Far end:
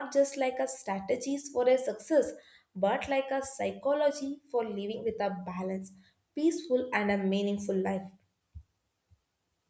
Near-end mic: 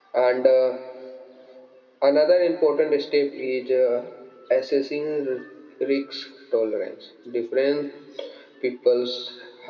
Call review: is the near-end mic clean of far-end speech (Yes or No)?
Yes